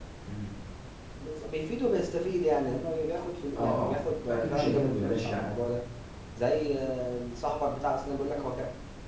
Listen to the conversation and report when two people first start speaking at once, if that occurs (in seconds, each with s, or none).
3.5 s